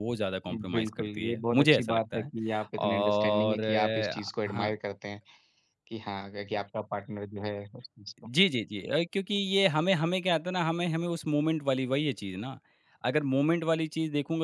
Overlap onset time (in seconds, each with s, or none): 0.7 s